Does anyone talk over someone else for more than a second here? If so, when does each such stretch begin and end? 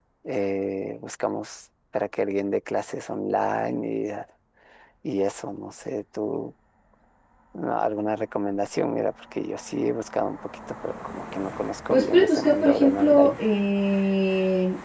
11.9-13.4

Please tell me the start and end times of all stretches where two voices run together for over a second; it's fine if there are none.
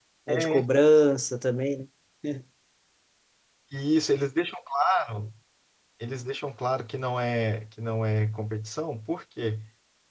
none

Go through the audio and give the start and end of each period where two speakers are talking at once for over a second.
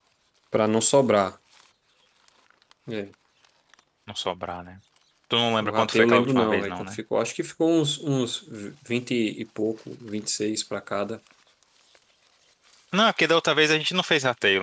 5.6-7.0

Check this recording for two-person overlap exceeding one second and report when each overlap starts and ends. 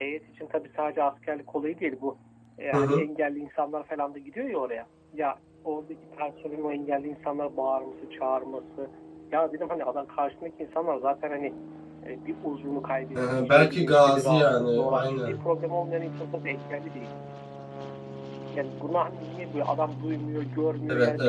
13.2-15.4

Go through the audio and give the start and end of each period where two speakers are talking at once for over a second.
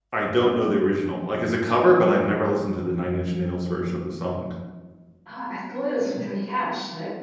none

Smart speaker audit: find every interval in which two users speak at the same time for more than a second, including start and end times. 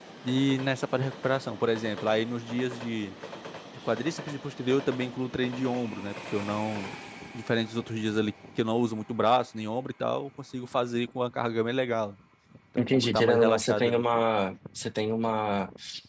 12.8-14.0

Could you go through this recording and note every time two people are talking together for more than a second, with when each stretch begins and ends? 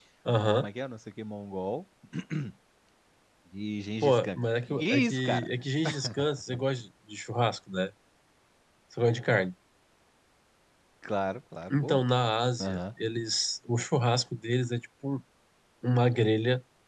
4.0-5.5

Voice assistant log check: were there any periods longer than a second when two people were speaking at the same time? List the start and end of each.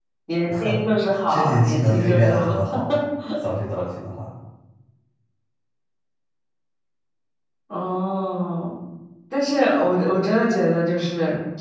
1.3-2.5

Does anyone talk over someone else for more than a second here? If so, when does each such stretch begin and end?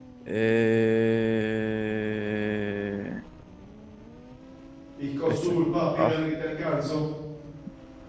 none

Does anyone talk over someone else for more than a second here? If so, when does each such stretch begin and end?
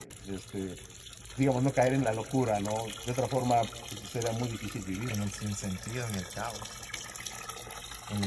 none

